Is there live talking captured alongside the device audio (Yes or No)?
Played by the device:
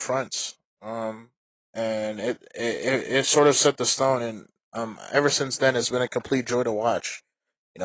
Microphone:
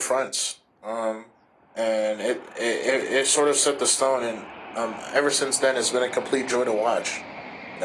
No